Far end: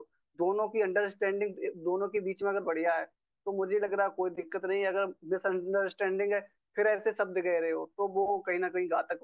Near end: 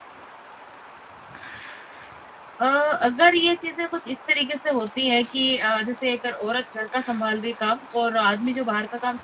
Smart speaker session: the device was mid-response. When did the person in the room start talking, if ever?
2.6 s

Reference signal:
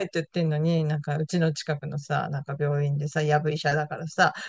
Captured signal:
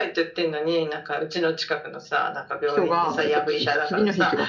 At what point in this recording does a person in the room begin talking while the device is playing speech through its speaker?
2.6 s

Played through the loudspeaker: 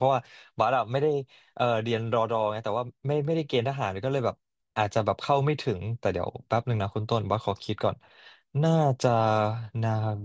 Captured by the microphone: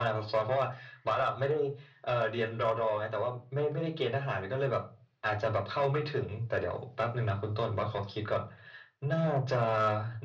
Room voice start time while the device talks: none

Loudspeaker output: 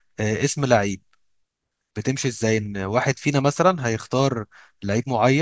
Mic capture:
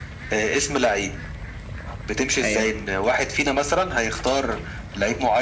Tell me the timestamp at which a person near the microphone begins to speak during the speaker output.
2.4 s

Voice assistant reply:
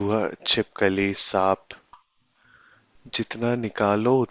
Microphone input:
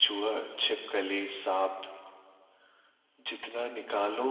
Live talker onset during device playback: none

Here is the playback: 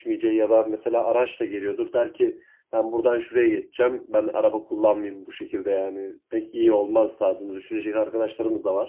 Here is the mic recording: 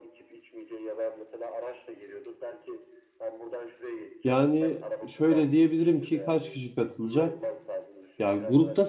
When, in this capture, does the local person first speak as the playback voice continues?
4.2 s

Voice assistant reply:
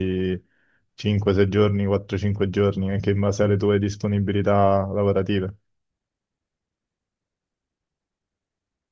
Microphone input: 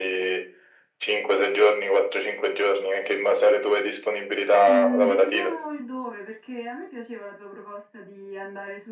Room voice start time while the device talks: 4.7 s

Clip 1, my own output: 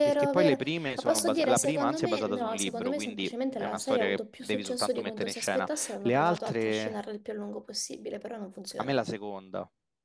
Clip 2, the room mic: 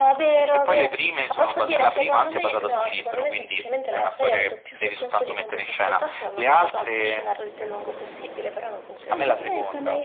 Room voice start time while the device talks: 9.1 s

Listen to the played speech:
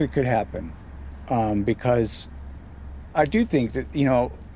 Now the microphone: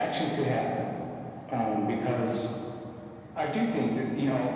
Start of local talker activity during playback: none

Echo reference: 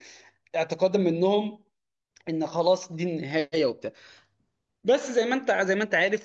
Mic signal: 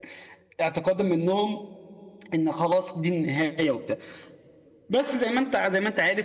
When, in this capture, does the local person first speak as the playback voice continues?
none

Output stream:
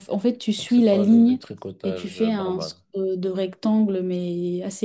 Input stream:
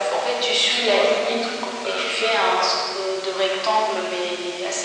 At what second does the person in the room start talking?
none

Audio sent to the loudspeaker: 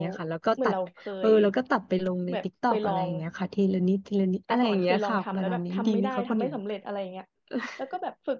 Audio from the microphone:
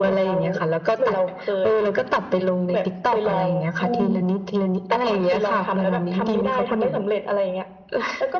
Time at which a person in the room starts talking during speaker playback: 3.8 s

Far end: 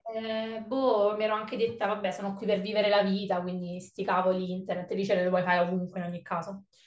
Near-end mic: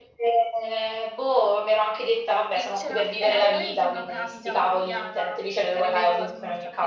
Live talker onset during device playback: 2.5 s

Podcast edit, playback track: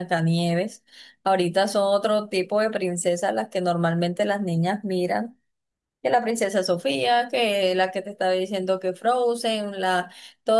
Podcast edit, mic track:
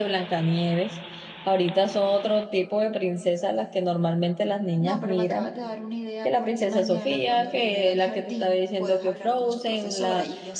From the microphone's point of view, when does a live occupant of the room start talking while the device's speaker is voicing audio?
4.8 s

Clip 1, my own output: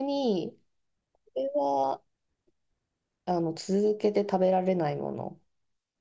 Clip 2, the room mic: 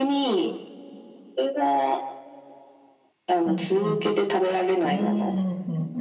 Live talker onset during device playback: 3.4 s

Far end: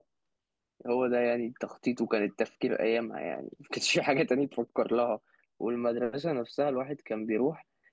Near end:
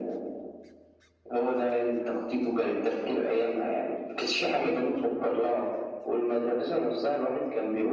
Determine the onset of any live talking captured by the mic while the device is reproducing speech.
none

